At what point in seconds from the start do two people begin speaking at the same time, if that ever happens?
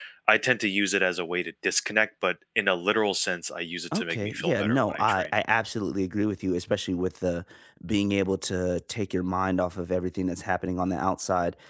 4 s

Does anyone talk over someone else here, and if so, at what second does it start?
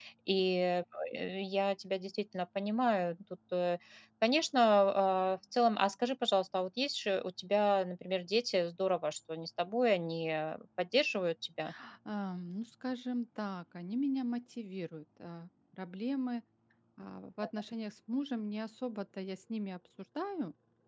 none

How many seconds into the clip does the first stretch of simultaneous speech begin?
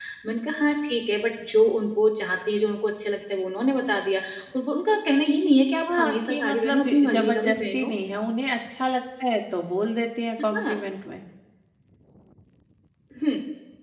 6 s

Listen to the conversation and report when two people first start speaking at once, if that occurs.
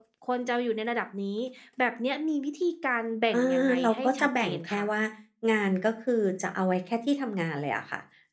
3 s

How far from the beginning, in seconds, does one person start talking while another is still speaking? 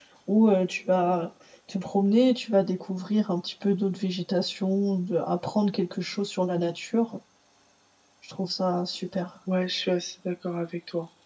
none

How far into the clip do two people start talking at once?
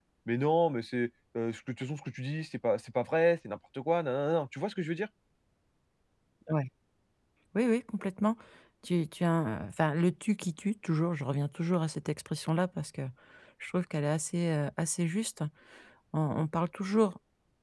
none

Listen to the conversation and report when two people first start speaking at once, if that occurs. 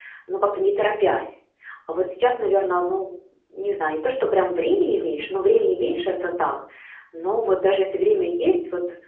none

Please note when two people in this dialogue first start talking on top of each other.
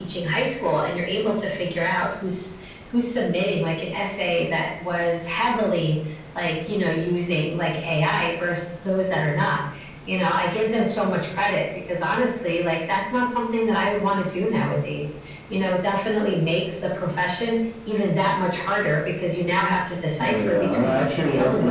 20 s

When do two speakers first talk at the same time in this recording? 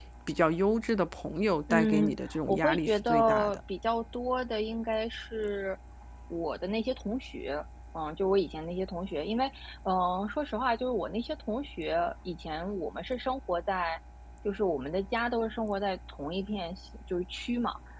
2 s

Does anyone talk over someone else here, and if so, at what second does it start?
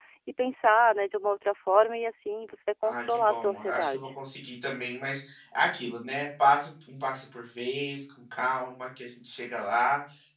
3 s

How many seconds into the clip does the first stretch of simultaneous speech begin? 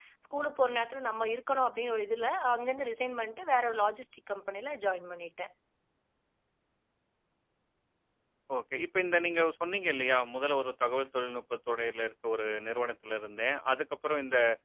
none

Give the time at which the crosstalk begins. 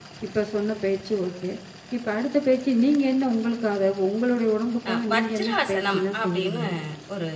5 s

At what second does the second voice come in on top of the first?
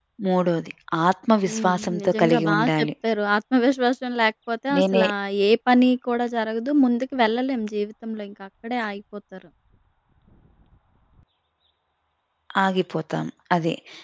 1 s

